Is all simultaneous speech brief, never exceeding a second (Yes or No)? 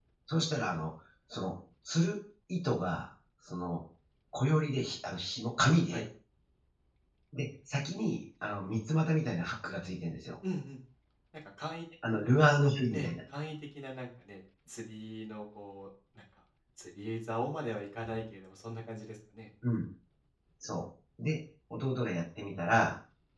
Yes